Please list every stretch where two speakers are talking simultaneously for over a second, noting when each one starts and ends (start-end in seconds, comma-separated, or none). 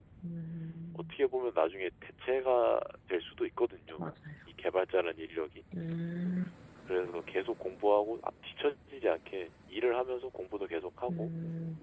none